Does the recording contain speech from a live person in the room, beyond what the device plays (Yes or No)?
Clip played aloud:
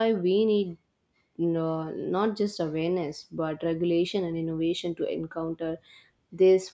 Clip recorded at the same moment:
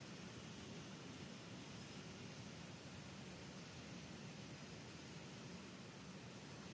No